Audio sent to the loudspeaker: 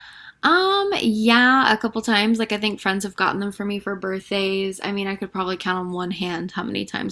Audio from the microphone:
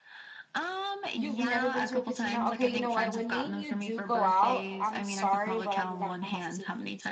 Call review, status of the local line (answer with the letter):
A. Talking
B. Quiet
A